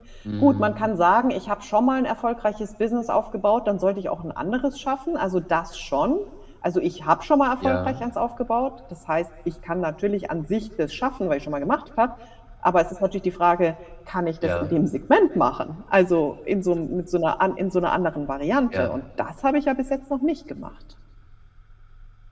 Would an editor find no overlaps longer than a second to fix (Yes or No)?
Yes